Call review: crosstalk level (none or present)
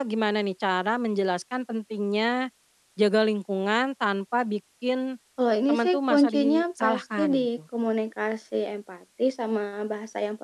present